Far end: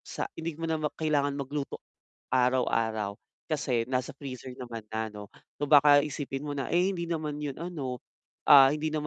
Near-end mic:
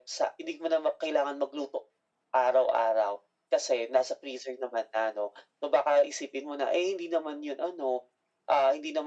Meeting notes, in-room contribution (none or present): none